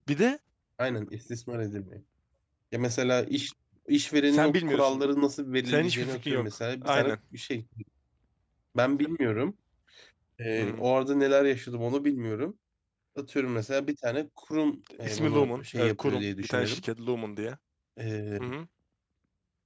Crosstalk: present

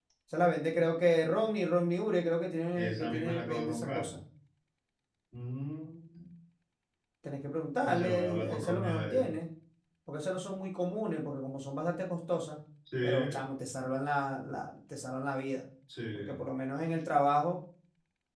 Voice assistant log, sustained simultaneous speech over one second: present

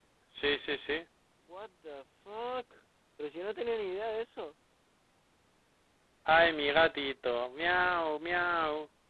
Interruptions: none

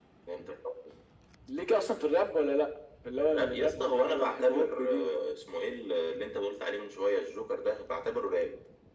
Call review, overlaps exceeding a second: present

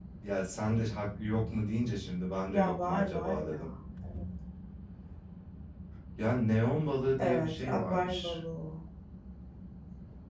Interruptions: present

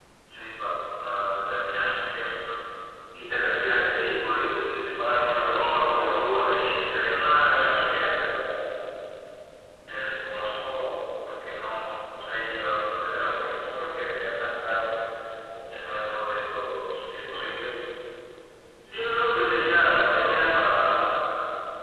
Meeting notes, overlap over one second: present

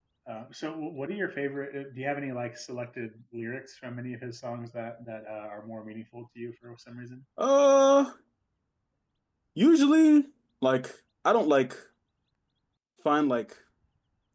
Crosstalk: none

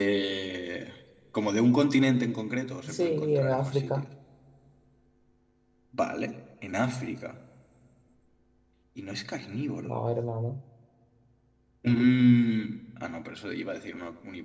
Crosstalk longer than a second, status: present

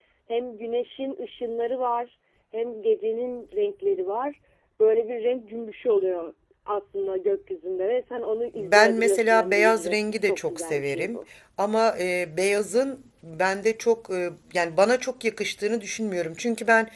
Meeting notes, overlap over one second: present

